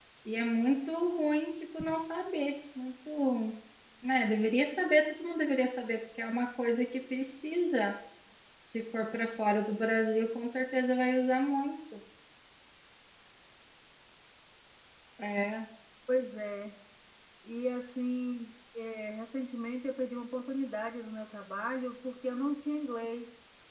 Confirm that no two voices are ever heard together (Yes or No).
Yes